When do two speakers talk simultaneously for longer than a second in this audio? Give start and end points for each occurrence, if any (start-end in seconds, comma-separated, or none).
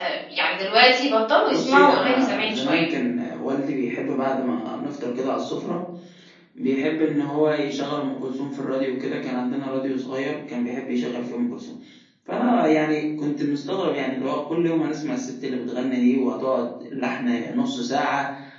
1.4-2.8